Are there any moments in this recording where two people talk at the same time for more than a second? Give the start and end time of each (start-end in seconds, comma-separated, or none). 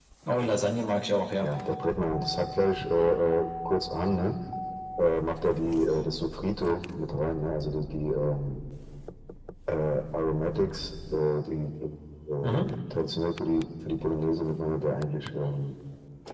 none